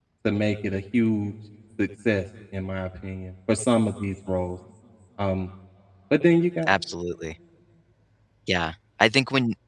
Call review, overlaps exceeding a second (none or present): none